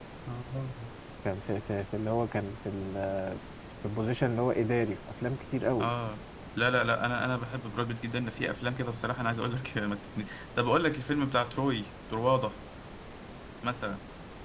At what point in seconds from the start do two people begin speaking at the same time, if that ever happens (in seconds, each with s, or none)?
none